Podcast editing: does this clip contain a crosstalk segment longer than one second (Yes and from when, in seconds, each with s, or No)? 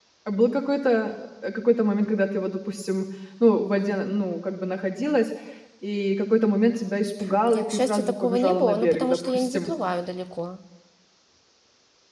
Yes, from 7.5 s